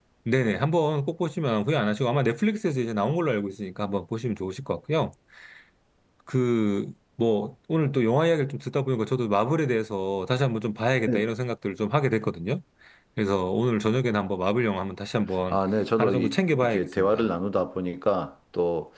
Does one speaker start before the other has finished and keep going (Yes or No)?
Yes